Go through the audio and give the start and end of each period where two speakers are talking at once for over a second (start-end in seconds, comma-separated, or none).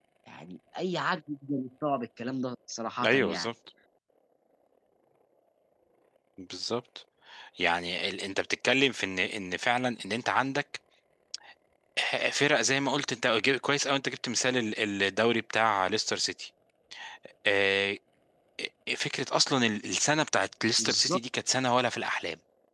none